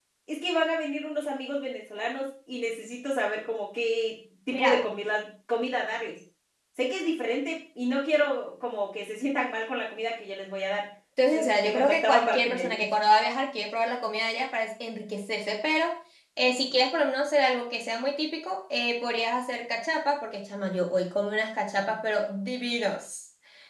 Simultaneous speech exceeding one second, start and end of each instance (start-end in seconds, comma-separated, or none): 11.3-12.8